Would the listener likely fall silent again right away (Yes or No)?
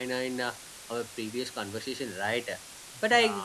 Yes